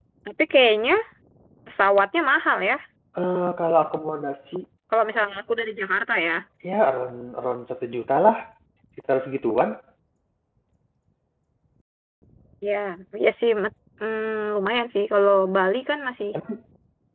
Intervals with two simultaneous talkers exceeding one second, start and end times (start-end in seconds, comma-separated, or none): none